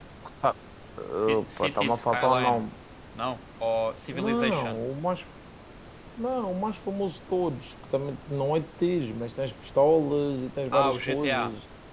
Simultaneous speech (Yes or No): Yes